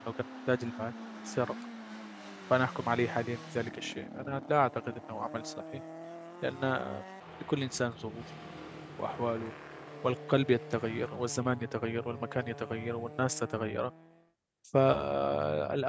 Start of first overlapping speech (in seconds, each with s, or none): none